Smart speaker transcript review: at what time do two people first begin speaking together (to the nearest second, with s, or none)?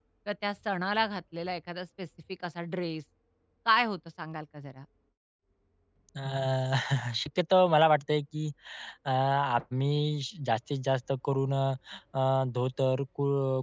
none